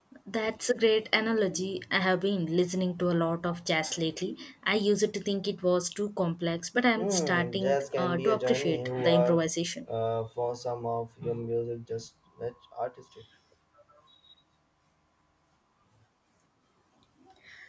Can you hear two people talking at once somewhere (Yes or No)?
Yes